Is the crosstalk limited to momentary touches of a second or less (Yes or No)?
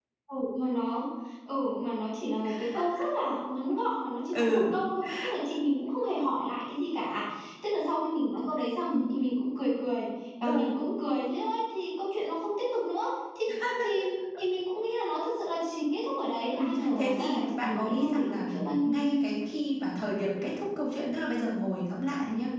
No